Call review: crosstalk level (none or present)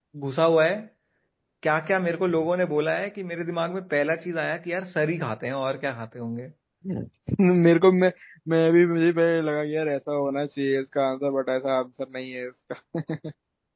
none